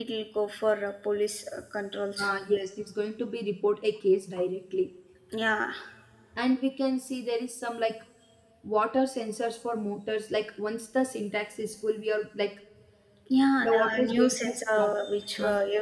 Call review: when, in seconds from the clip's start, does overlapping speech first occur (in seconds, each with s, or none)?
13.6 s